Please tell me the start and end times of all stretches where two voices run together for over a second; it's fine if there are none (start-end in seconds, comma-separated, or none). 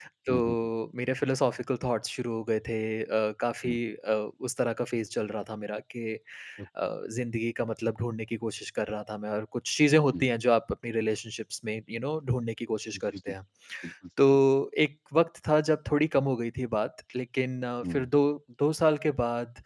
none